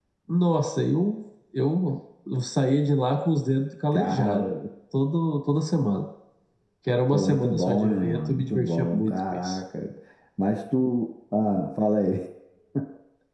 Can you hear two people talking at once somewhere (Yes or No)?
Yes